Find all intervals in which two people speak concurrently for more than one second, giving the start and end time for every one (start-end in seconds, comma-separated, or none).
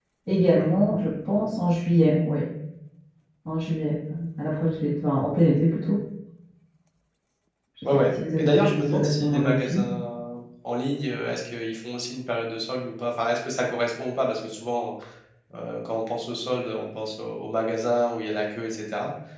7.8-9.8